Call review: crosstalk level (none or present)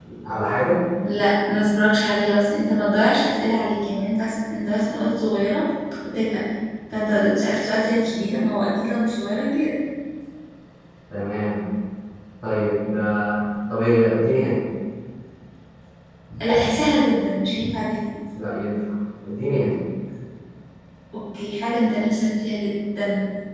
none